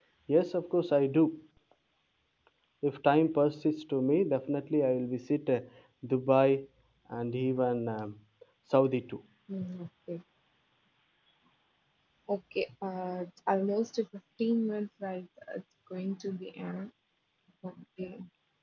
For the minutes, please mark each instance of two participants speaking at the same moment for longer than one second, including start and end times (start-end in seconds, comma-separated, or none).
none